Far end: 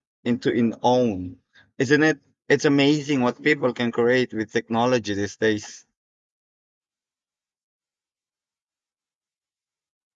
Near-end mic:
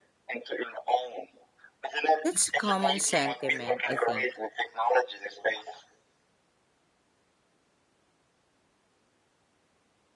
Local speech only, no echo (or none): That's a common sentiment, I think.